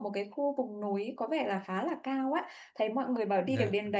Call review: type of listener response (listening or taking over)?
listening